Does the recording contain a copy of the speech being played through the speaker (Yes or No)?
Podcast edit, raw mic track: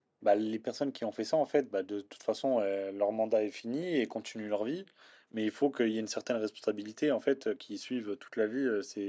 No